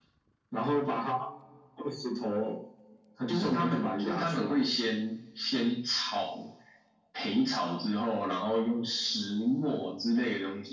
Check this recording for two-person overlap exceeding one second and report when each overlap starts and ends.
3.3-4.6

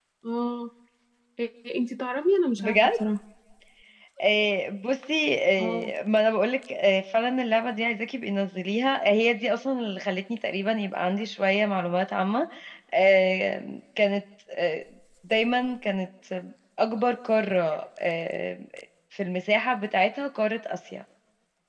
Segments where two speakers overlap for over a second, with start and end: none

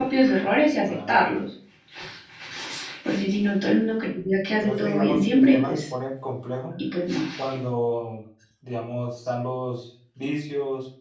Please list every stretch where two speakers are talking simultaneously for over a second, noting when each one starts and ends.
4.6-5.8

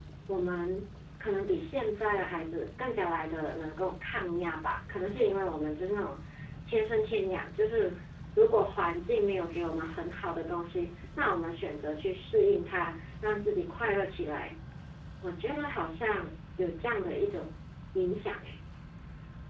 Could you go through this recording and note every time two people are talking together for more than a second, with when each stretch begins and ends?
none

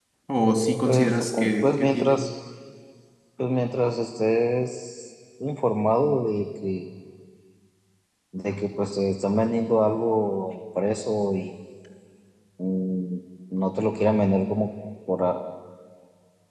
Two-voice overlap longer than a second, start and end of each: 0.8-2.2

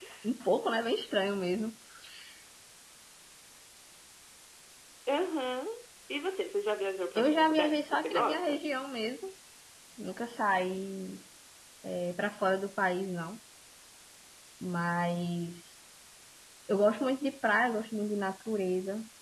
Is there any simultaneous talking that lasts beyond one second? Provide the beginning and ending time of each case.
7.2-8.6

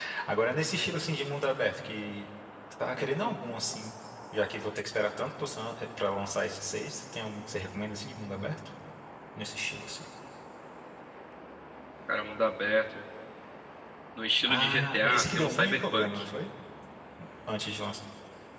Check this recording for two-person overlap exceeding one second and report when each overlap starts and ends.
14.5-16.2

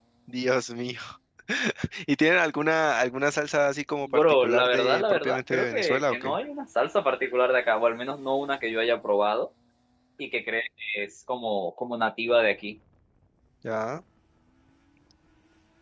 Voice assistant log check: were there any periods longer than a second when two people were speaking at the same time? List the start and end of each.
4.1-6.4

